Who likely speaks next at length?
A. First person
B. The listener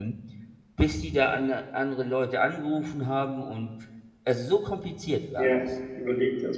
B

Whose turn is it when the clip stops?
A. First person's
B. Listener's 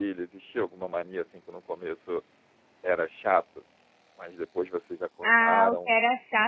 B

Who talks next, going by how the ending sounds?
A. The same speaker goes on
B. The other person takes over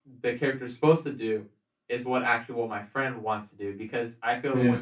A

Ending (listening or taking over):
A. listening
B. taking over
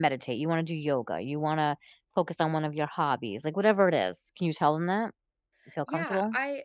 B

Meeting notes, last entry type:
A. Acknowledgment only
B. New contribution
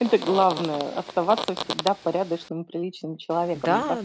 B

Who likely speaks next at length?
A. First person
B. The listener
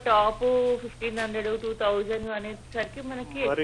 B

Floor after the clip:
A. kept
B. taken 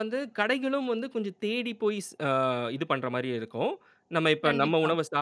A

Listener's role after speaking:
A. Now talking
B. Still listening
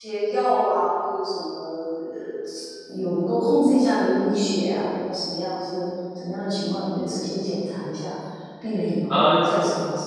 B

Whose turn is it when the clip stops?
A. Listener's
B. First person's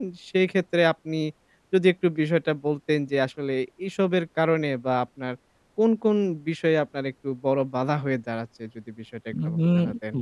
A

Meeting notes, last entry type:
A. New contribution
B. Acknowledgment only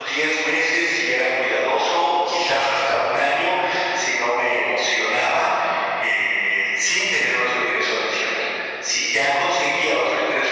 B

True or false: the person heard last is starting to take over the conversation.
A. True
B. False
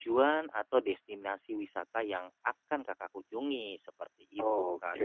A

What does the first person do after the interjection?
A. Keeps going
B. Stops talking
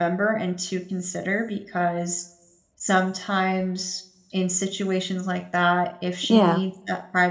A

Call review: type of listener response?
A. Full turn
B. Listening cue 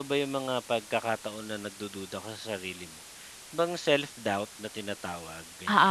A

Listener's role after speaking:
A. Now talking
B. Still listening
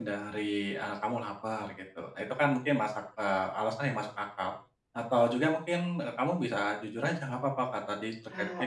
B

